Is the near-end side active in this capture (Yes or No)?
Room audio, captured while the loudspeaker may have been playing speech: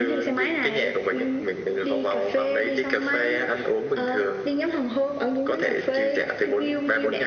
No